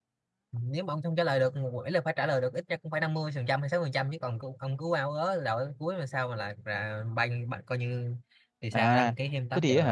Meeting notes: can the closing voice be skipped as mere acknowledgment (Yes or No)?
No